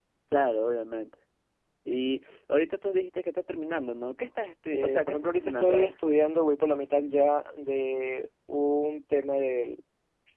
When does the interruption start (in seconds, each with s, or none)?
4.7 s